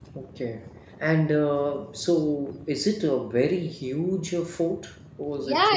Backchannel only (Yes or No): No